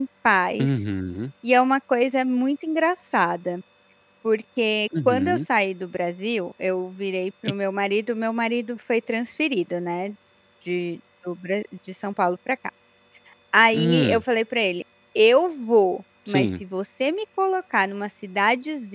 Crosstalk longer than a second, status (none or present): none